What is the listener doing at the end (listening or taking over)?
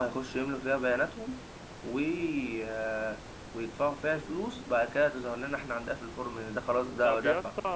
taking over